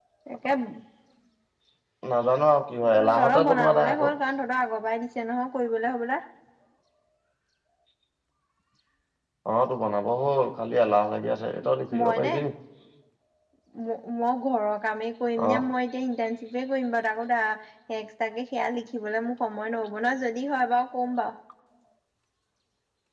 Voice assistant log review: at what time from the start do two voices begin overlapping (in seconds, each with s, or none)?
2.9 s